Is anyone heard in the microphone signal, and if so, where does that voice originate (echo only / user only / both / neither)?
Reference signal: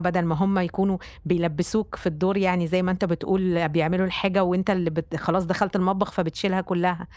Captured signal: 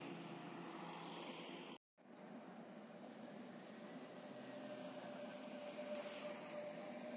neither